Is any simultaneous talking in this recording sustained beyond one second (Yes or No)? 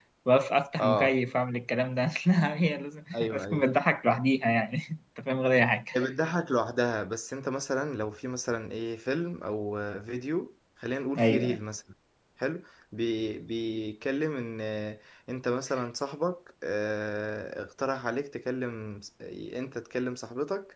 No